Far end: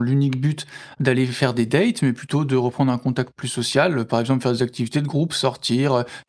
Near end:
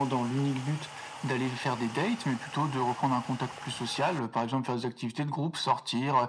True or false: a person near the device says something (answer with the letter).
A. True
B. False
B